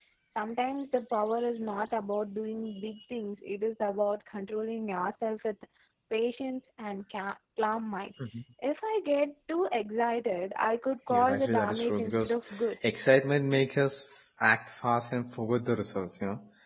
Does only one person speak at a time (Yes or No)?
No